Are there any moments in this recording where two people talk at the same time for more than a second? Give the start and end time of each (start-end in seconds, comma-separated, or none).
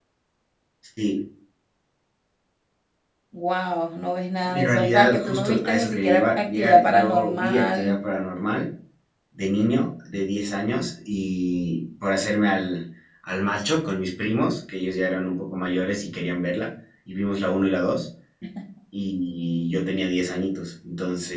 4.4-8.0